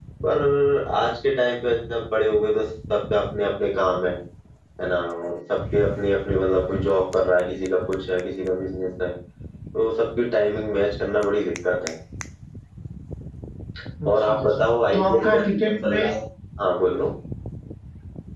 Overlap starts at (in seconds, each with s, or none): 14.1 s